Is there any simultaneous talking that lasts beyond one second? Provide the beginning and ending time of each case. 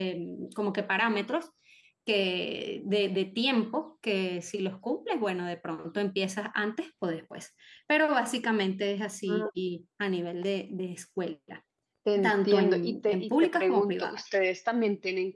12.2-14.2

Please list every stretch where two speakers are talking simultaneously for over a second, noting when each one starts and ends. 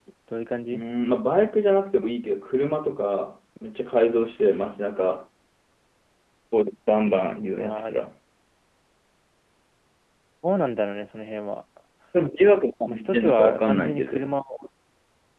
12.9-14.4

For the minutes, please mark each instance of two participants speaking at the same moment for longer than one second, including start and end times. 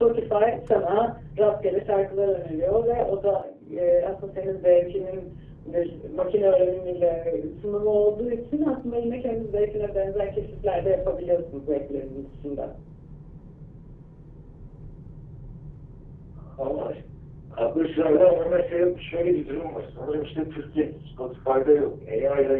none

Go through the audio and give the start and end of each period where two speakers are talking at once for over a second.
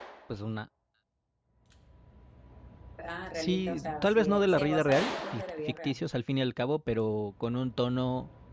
3.3-6.0

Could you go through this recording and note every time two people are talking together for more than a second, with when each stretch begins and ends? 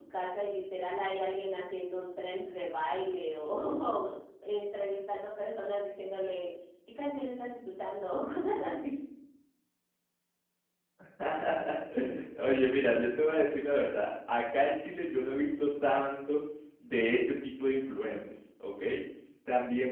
none

